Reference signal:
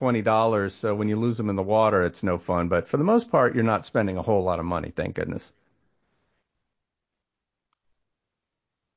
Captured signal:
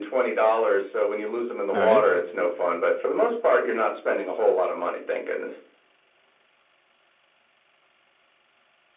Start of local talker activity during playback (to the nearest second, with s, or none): 2 s